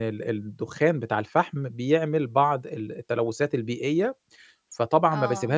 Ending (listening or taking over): listening